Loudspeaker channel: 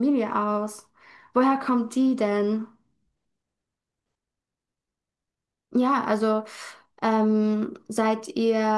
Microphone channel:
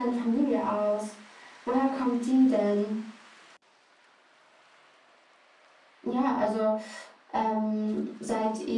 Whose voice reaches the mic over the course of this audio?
echo only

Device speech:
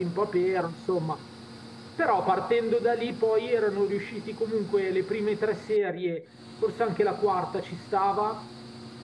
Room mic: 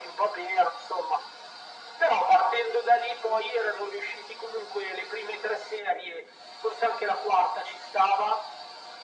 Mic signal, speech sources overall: echo only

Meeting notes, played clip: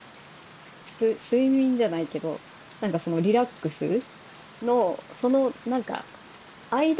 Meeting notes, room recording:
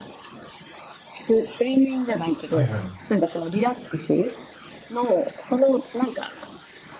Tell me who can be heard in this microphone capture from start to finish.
both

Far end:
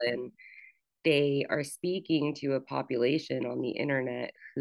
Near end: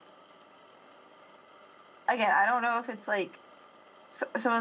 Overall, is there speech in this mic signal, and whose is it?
user only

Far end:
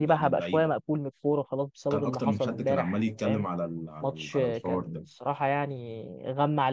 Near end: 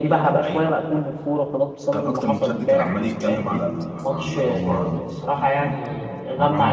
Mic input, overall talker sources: both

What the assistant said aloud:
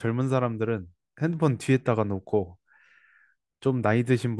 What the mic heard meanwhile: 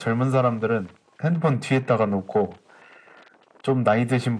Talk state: echo only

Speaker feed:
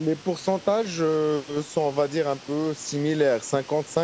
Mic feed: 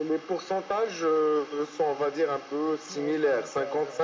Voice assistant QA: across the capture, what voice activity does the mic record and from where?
both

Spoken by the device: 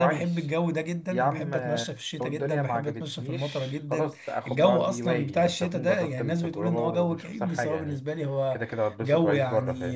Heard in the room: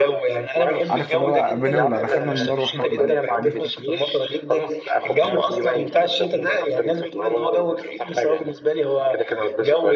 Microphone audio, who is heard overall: both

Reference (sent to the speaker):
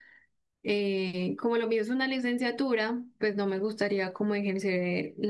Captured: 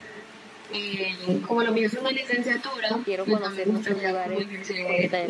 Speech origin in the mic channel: both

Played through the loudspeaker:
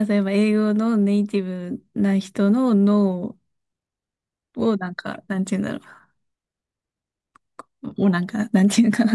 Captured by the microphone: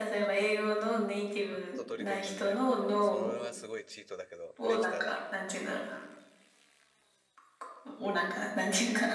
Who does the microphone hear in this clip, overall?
both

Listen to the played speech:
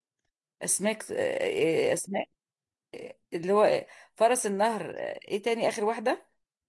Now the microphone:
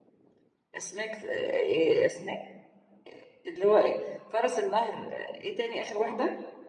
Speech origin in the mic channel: echo only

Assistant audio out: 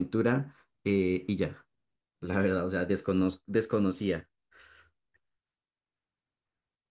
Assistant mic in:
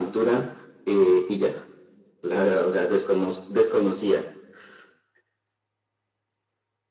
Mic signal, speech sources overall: echo only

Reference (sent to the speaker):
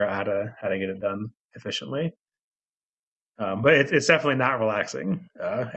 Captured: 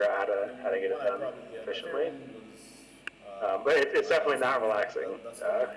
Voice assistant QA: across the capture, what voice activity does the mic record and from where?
both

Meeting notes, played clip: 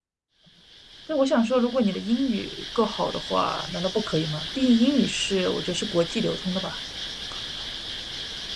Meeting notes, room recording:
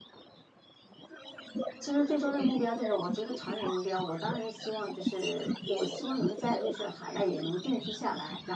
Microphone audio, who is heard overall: both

